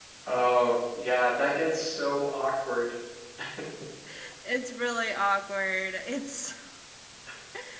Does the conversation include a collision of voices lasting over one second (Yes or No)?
No